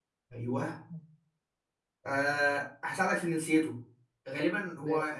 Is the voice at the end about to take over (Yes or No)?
No